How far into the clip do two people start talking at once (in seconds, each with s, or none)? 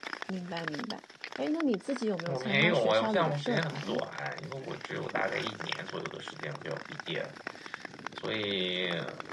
2.3 s